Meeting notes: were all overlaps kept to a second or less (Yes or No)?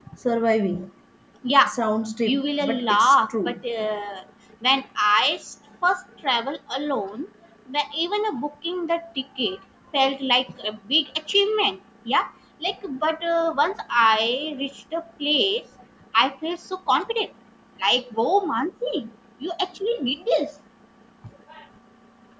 No